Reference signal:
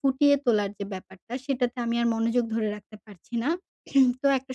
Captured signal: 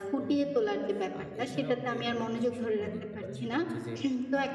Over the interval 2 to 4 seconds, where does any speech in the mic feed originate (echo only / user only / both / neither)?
both